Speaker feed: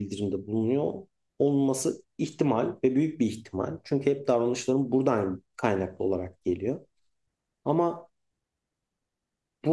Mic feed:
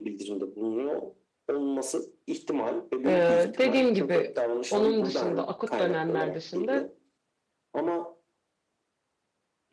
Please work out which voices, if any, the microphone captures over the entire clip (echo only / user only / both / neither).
both